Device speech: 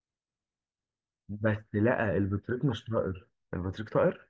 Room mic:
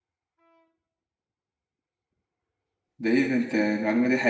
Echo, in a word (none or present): none